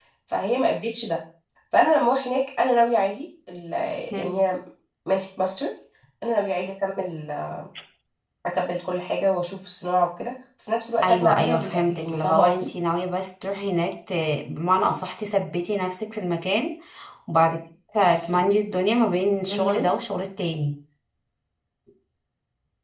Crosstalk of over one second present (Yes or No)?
Yes